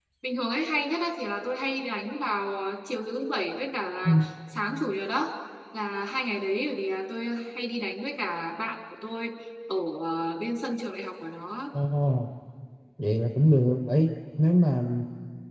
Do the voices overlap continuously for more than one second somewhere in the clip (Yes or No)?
No